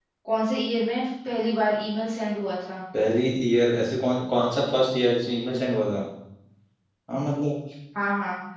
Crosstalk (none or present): none